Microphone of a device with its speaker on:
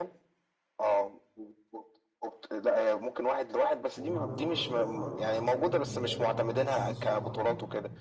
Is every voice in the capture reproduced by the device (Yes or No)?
No